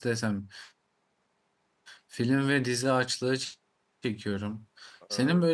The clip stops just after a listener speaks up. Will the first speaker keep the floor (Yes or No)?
Yes